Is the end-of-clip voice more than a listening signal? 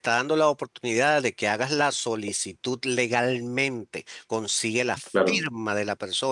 No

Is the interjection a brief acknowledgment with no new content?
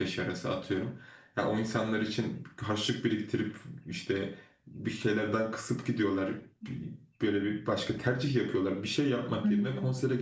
Yes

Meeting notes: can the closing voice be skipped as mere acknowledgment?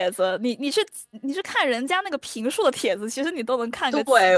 No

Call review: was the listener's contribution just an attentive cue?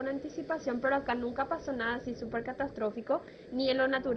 Yes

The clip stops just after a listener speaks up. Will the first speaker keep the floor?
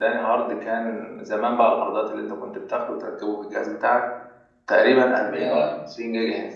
Yes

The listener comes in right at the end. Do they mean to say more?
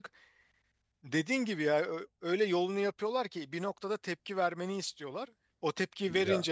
No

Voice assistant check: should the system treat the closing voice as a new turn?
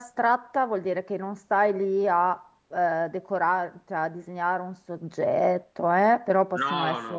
No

